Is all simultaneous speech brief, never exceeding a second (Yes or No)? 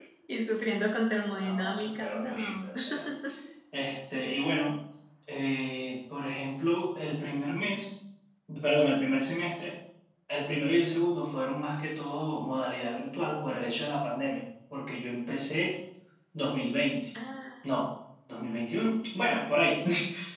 No